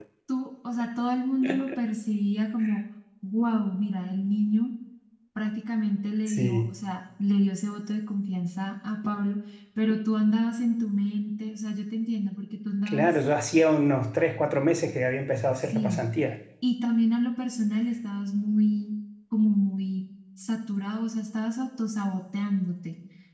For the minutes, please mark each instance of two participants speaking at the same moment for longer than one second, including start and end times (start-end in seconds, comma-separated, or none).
none